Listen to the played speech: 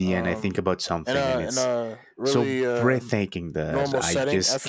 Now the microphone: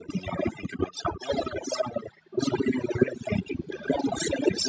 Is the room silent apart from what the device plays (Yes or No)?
Yes